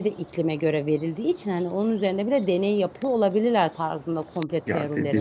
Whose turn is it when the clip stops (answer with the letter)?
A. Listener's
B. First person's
A